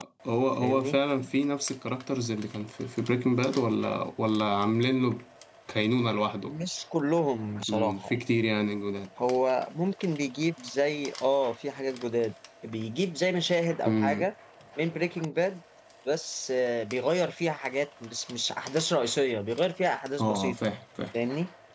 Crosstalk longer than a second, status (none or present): none